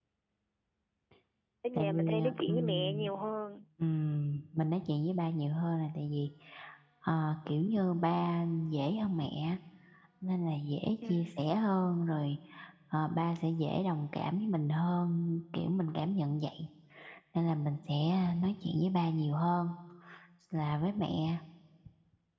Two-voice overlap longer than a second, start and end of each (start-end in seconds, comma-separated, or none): 1.8-3.1